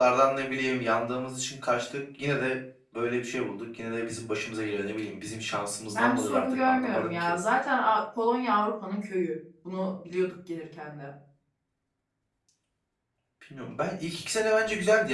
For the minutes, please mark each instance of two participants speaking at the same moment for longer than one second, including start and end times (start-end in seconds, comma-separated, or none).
5.9-7.4